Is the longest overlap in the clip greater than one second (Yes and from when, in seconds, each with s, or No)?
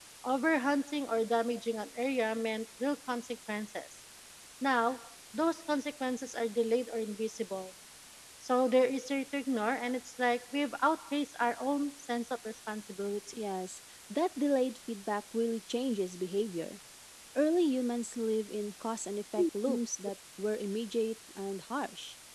No